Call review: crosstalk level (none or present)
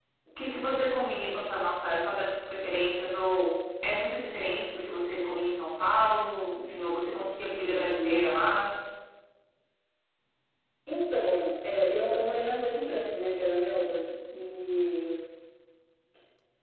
none